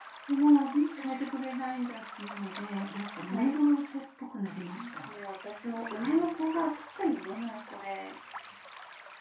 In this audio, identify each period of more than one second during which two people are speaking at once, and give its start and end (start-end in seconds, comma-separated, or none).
none